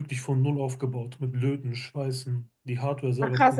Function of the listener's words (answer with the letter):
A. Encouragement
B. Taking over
B